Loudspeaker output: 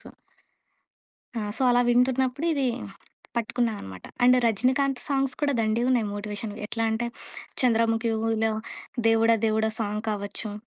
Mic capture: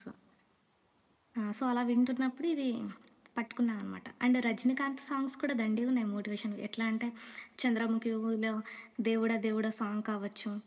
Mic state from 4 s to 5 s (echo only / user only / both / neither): echo only